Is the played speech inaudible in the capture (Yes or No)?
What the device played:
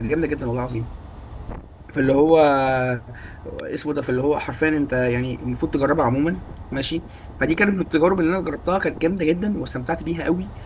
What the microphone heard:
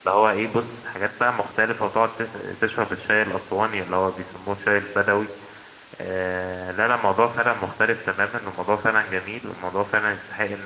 Yes